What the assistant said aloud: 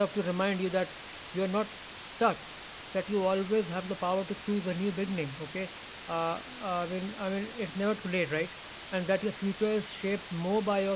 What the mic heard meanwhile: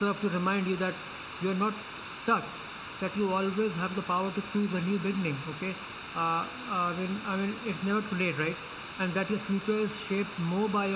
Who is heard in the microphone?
echo only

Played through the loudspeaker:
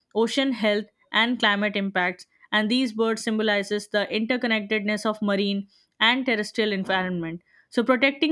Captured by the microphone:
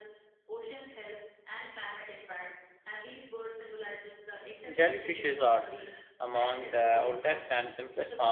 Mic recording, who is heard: both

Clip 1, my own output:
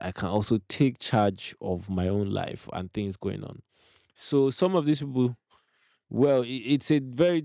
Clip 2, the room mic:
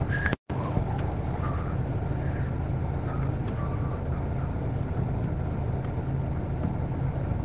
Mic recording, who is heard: neither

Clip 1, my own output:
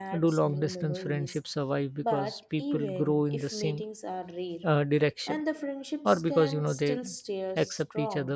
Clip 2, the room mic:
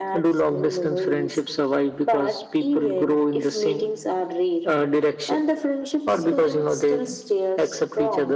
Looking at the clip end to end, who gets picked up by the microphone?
echo only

